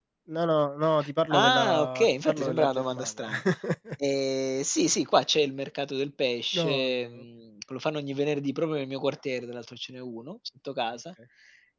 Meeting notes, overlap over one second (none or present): present